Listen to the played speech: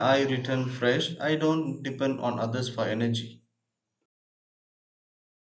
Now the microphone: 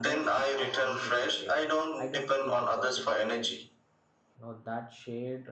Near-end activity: present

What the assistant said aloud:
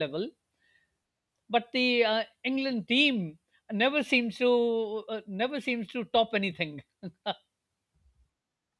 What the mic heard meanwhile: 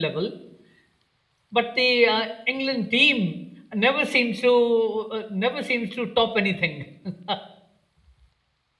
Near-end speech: none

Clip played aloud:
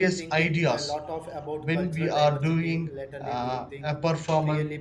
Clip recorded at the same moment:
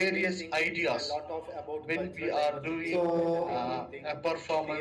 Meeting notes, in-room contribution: present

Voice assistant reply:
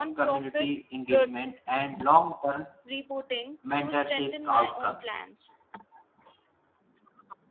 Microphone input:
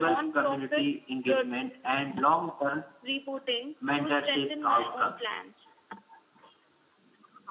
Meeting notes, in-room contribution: none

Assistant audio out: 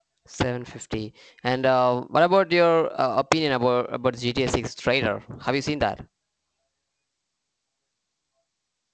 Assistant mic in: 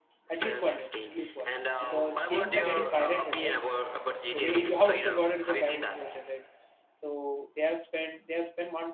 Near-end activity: present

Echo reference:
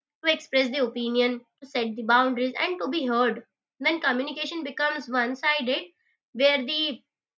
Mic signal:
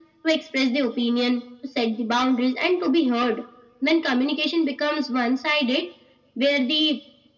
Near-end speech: none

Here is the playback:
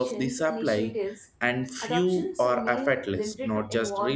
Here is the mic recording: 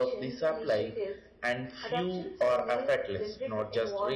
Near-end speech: none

